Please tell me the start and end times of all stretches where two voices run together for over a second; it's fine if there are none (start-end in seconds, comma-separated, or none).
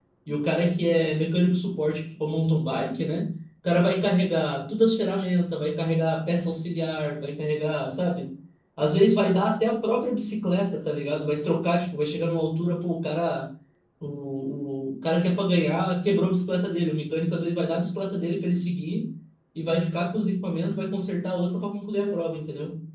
none